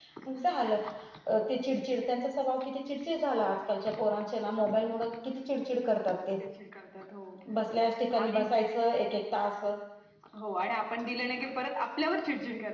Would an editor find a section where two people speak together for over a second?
No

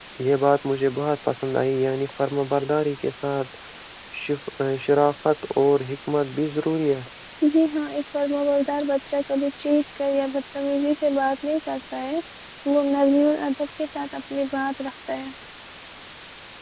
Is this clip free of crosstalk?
Yes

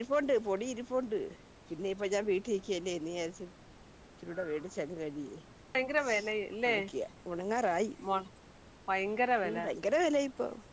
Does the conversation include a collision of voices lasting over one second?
No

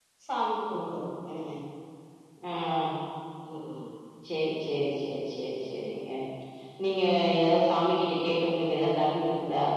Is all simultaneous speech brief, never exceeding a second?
Yes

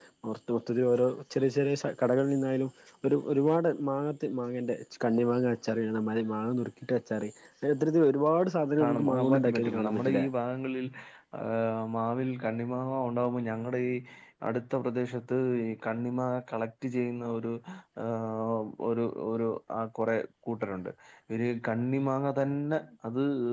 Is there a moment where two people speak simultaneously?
Yes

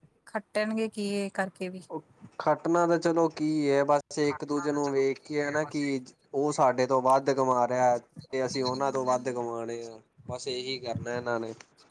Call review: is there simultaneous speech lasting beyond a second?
No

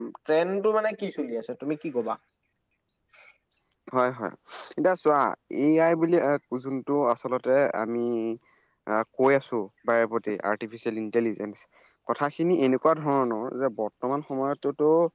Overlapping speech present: No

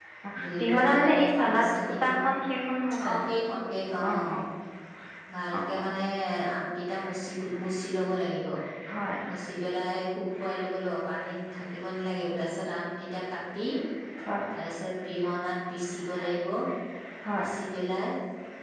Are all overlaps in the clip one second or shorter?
No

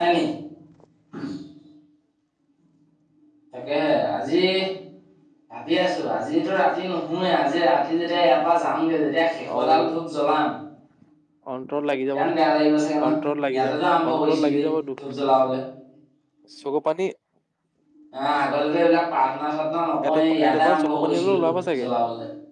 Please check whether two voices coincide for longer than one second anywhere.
Yes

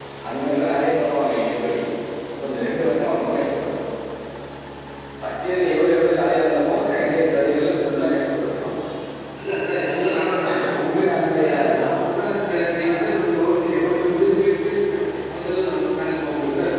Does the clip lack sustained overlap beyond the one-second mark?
Yes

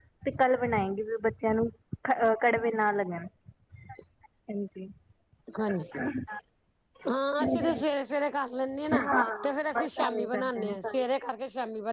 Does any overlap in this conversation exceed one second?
Yes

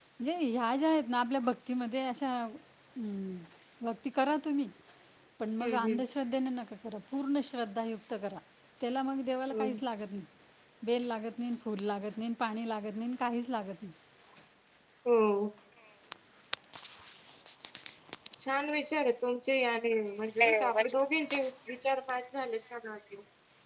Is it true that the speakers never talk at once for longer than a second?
Yes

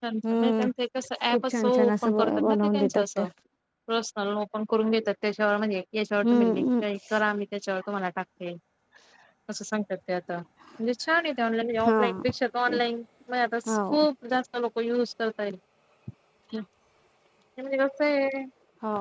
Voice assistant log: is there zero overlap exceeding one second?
No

